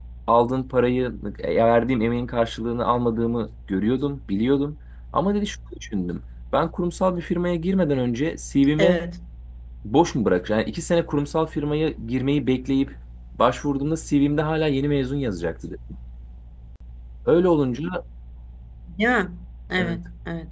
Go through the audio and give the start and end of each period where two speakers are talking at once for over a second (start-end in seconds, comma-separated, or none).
none